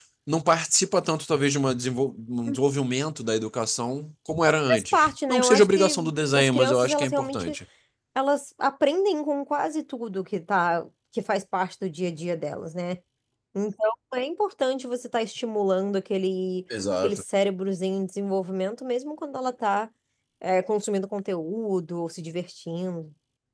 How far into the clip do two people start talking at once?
5 s

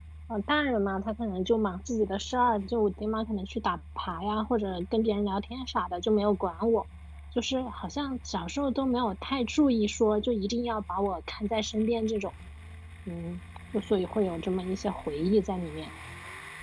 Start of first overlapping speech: none

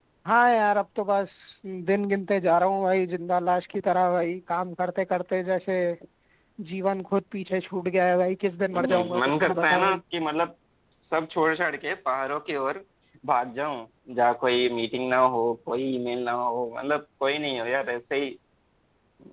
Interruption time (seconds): 9 s

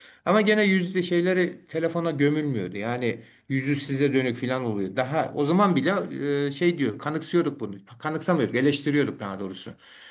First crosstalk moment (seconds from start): none

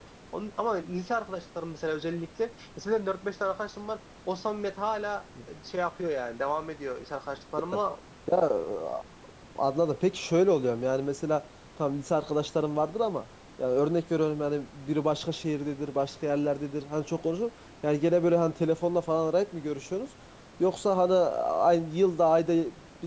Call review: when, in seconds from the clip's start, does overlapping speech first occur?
none

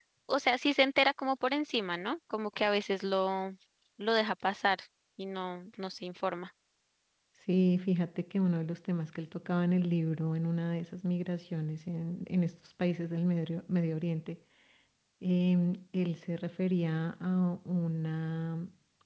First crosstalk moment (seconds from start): none

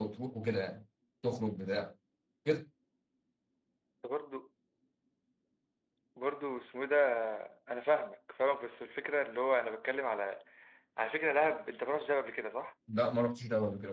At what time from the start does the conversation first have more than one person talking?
none

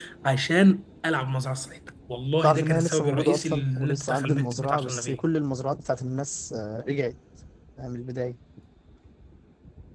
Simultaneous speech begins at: 2 s

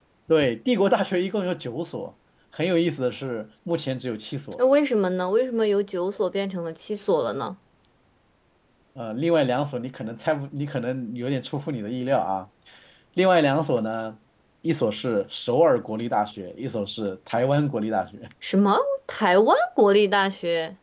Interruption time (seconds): none

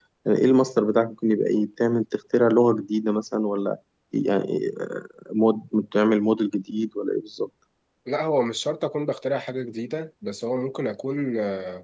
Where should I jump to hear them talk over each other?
none

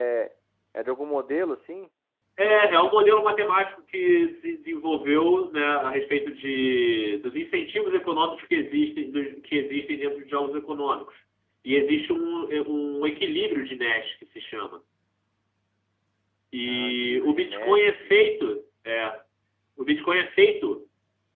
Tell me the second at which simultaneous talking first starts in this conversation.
17 s

